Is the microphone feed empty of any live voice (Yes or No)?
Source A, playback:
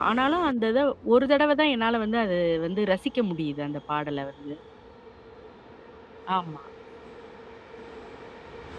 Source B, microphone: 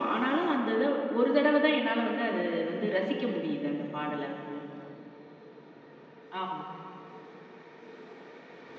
Yes